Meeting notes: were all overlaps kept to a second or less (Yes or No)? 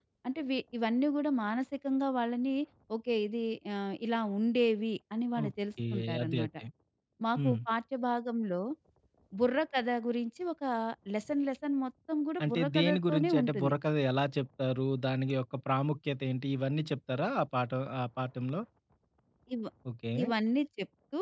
No